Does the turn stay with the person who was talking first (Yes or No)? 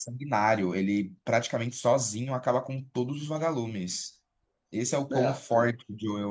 Yes